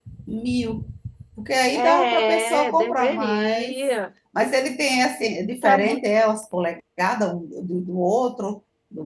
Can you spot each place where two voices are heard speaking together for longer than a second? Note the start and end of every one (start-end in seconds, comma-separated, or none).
1.7-3.8